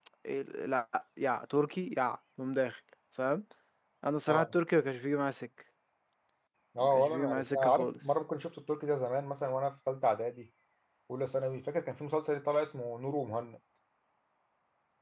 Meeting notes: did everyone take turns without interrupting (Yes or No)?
No